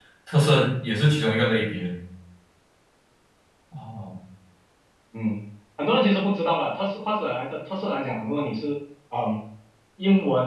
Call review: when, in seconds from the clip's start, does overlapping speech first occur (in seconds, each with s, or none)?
none